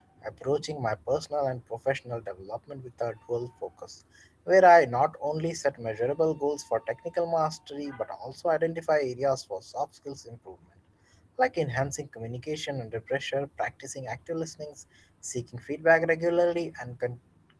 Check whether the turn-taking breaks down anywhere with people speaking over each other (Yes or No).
No